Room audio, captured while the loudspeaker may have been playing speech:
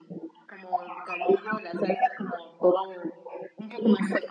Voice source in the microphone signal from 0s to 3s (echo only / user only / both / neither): echo only